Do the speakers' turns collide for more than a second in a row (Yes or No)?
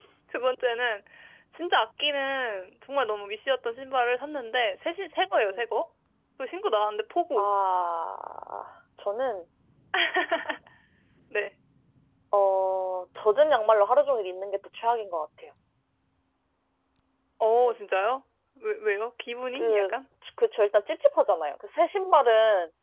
No